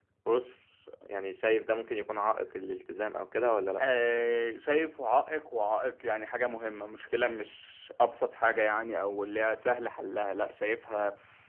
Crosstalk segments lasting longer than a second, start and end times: none

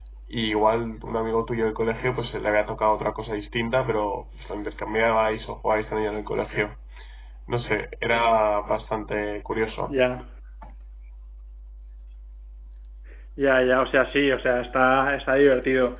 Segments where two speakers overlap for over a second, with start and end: none

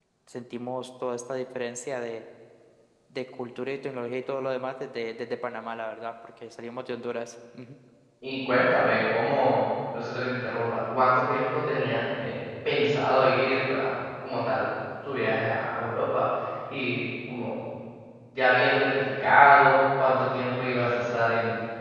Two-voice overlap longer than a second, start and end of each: none

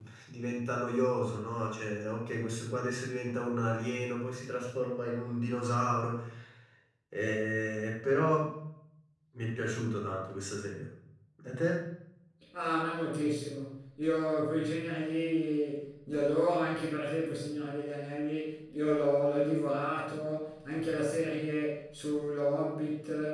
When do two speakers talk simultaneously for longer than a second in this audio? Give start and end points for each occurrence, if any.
none

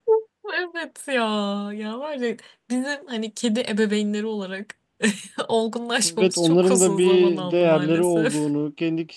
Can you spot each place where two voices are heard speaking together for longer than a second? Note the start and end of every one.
6.0-8.4

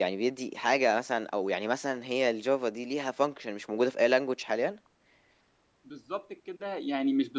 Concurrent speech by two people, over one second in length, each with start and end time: none

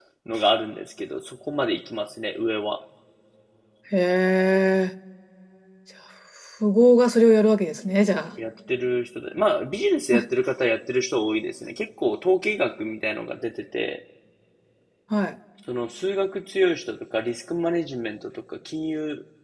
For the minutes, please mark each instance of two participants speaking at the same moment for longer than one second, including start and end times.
none

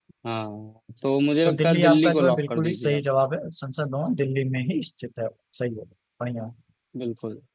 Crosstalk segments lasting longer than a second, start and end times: 1.4-3.0

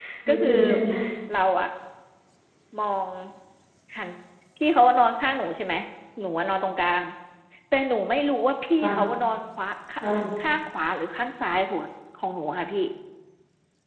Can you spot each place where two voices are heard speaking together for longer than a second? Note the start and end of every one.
none

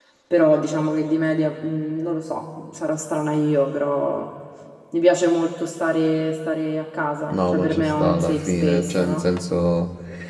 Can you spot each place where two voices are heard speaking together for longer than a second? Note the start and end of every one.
7.3-9.2

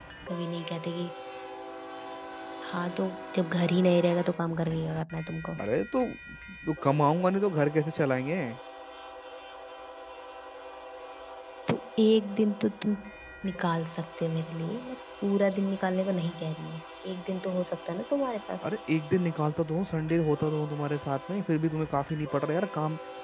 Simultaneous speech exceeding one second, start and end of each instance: none

